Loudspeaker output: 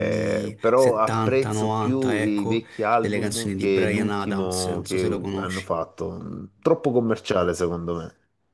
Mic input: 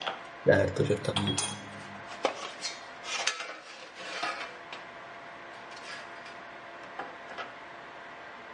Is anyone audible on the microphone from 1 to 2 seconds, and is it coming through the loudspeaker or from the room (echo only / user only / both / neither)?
user only